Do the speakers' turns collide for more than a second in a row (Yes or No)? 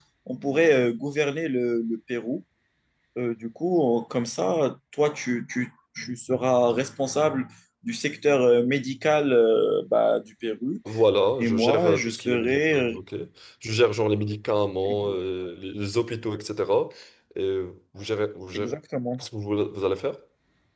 Yes